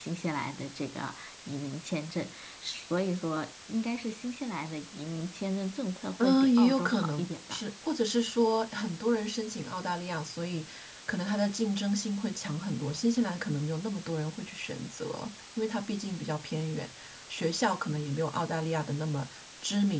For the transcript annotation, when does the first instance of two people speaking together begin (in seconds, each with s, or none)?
6.2 s